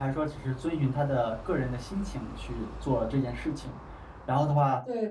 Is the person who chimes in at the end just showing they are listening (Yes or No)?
Yes